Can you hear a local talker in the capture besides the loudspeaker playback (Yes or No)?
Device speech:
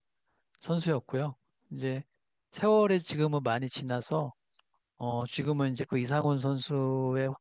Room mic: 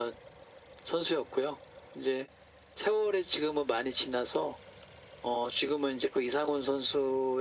No